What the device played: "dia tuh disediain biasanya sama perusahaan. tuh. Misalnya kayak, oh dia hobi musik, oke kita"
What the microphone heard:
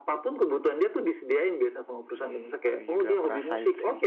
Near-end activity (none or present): present